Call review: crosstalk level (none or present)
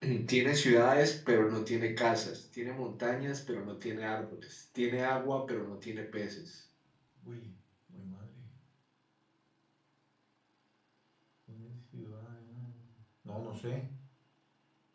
none